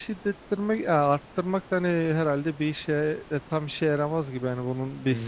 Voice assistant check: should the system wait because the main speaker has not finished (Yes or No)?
No